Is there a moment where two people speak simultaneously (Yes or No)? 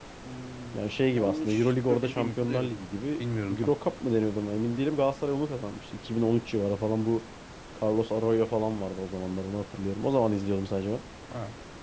Yes